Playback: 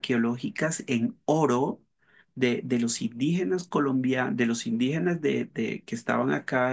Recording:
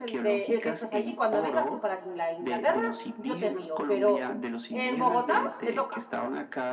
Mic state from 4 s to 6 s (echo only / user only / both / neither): both